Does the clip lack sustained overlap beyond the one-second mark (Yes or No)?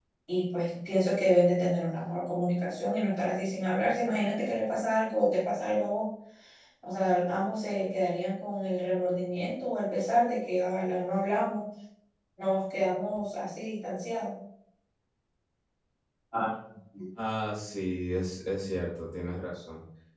Yes